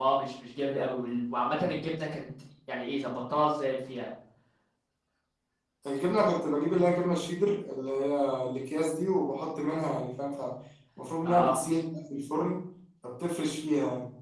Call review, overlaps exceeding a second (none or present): none